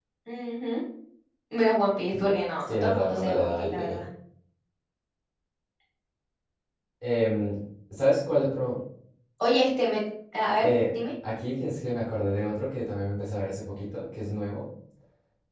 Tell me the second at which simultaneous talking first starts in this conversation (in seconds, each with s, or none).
2.6 s